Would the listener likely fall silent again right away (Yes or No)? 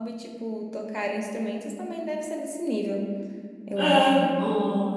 No